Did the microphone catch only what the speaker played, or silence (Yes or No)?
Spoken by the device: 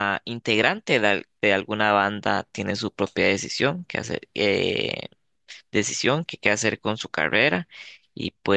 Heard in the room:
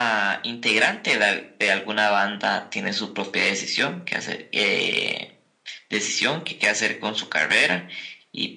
Yes